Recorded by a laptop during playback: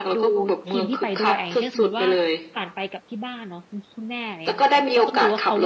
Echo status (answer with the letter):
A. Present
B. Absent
A